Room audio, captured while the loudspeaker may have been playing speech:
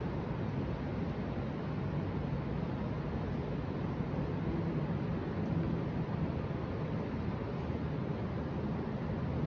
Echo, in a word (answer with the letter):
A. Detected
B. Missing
B